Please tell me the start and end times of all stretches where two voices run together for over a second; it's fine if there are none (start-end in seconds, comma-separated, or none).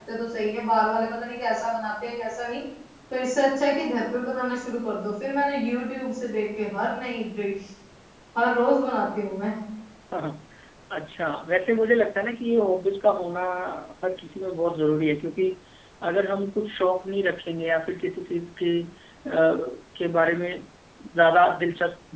none